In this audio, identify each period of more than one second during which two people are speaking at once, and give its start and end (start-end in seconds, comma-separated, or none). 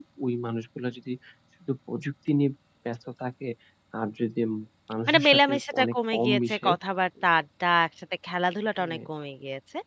5.1-6.7